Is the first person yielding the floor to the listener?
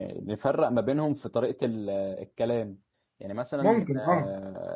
No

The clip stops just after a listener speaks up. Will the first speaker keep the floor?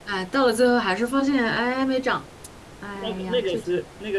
No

